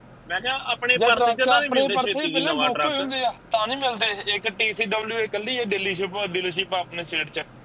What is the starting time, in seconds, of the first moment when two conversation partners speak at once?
1.0 s

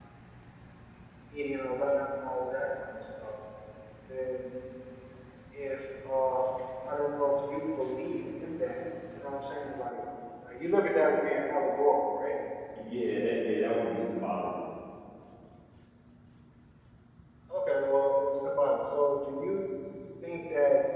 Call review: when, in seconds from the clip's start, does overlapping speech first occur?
none

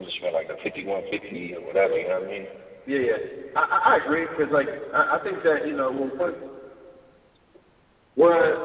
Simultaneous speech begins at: none

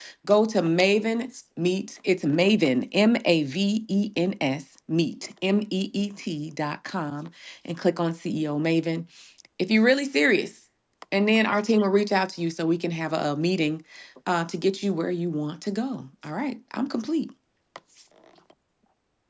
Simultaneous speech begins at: none

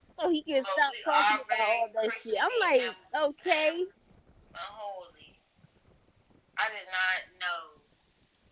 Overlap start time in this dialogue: 0.5 s

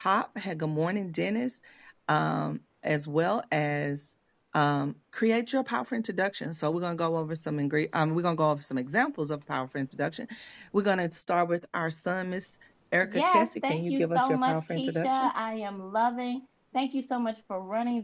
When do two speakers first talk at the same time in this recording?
13.0 s

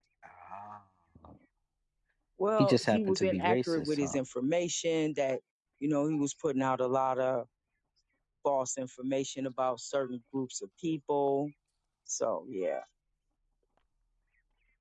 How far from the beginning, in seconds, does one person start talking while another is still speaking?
2.6 s

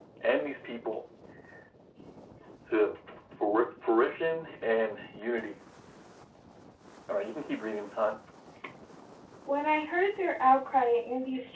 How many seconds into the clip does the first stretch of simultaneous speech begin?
none

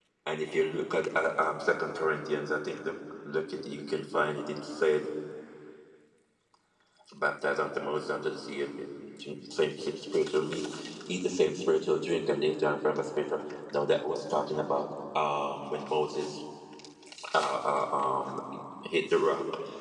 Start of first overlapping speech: none

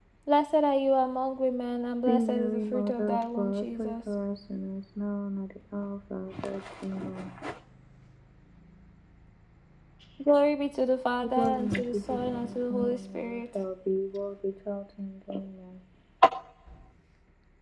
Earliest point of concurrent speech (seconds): 2.0 s

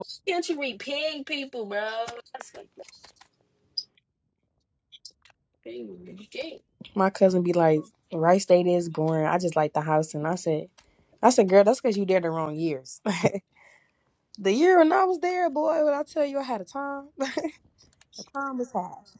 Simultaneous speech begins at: none

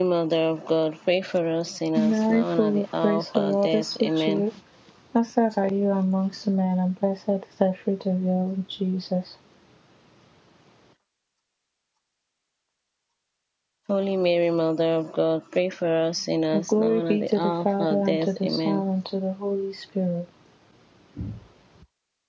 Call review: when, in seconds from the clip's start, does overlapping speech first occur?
2.0 s

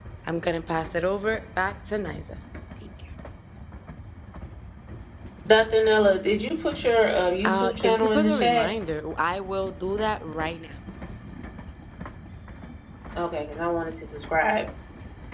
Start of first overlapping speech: 7.4 s

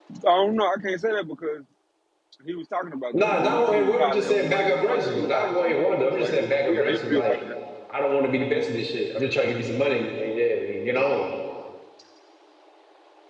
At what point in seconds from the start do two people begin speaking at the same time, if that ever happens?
3.1 s

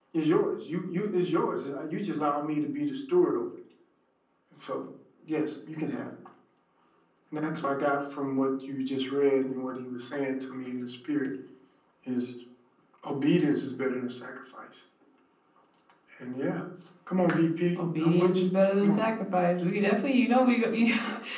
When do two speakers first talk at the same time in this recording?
17.8 s

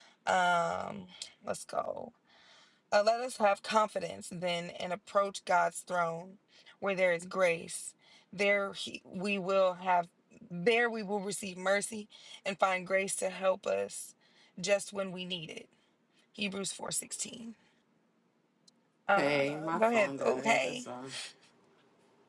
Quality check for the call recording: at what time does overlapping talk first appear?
19.2 s

